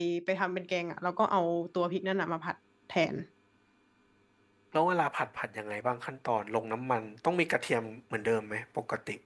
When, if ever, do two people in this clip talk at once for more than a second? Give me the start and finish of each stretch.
none

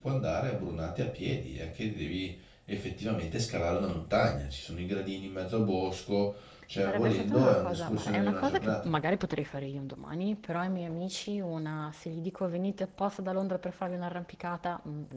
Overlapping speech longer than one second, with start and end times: 6.8-8.9

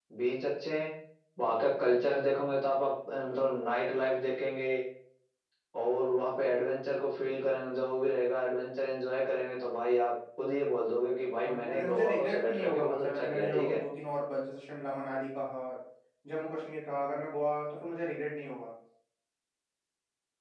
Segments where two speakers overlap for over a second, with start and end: 11.4-13.8

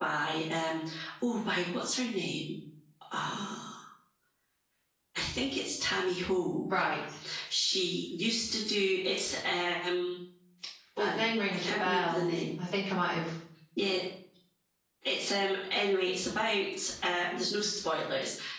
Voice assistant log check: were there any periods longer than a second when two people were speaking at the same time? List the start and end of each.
11.0-12.3

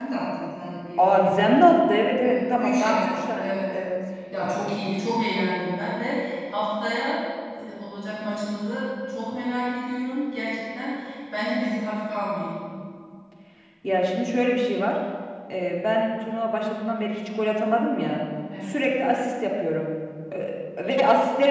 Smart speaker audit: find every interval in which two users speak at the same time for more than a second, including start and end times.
2.2-3.7

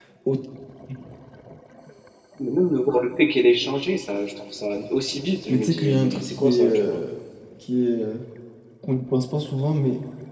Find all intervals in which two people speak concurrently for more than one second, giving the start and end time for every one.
5.5-7.0

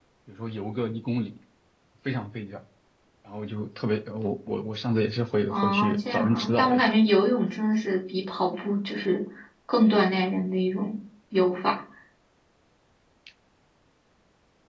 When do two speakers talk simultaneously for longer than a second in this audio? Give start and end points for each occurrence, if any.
5.5-6.9

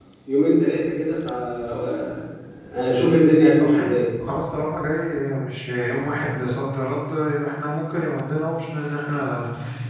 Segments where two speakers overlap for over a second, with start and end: none

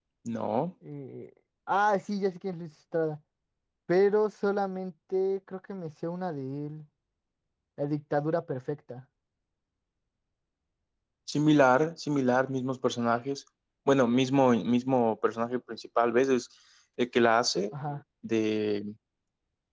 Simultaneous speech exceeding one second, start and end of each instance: none

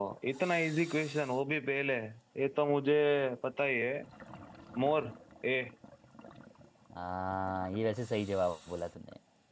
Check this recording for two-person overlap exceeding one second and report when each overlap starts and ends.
none

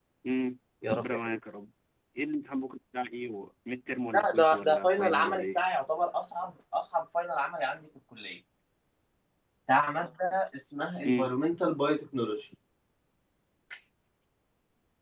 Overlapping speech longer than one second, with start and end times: 4.1-5.6

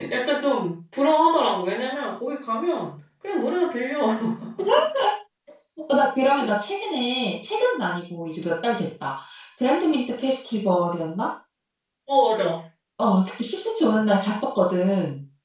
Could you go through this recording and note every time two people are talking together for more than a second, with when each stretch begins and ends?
none

